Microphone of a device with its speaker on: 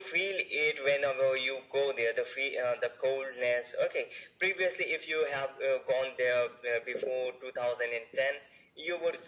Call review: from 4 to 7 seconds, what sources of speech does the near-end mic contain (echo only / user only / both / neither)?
echo only